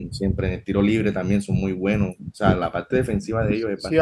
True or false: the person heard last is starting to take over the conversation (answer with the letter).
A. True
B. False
A